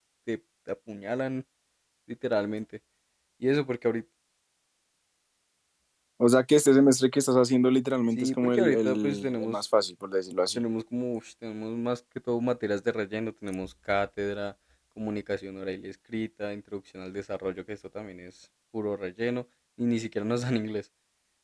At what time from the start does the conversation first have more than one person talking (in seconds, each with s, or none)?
8.2 s